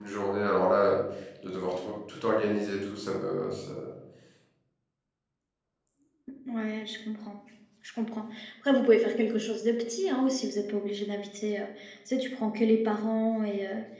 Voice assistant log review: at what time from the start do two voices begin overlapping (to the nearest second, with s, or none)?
none